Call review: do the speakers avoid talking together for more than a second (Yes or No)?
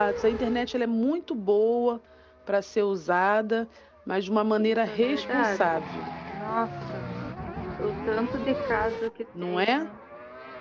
No